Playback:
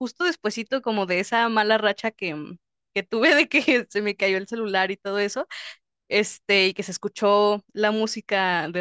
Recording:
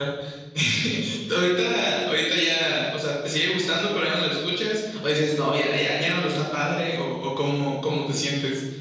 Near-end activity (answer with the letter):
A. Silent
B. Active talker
B